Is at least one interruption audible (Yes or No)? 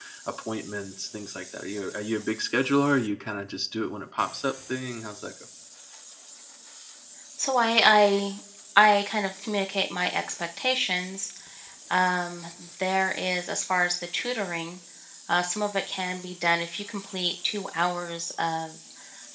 No